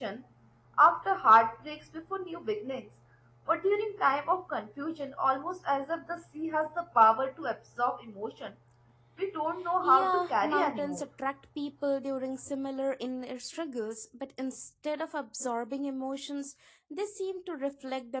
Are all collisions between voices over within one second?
No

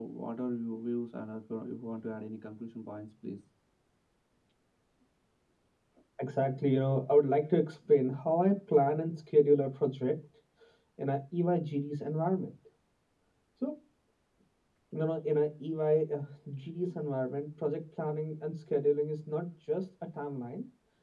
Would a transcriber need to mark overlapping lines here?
No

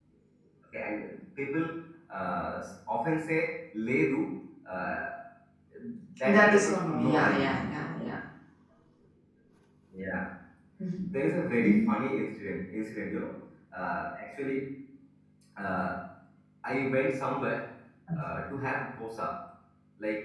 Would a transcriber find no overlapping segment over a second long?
No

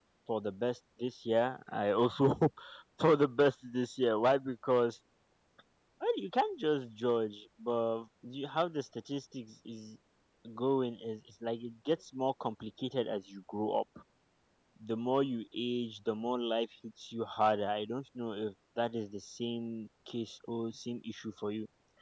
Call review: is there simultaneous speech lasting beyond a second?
No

